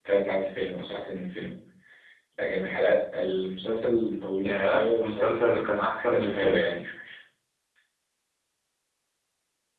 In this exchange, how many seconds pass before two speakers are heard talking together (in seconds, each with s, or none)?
4.4 s